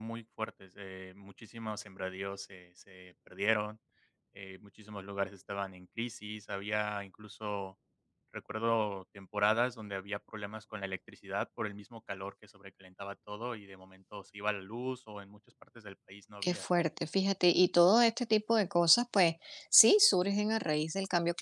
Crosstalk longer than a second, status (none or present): none